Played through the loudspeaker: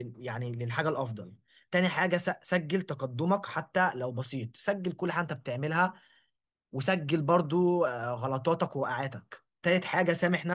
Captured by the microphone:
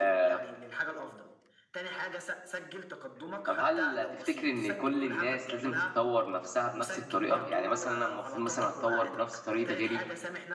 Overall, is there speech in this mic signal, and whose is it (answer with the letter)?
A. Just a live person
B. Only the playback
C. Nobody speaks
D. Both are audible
D